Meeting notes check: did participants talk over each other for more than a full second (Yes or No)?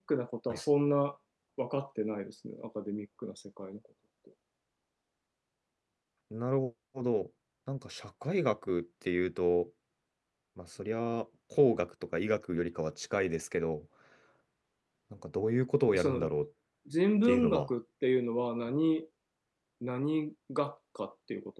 No